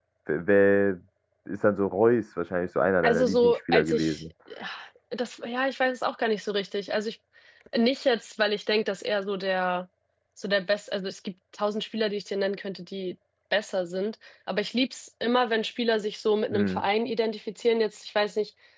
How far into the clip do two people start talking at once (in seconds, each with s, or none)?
3.0 s